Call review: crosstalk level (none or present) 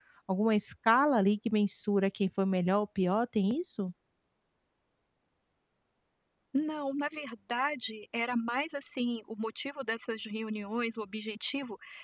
none